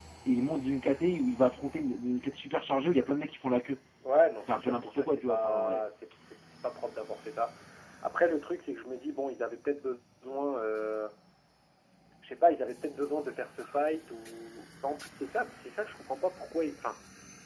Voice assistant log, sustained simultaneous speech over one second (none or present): present